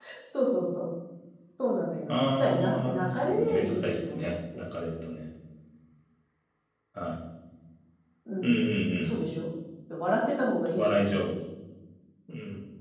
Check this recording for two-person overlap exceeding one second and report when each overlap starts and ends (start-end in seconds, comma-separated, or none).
2.1-4.6